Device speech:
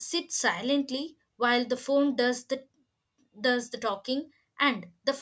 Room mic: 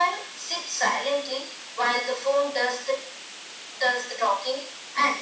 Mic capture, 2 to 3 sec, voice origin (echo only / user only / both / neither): echo only